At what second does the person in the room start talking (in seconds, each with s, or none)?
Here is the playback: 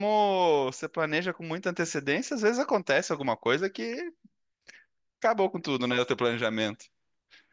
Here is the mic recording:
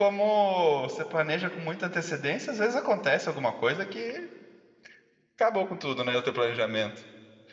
none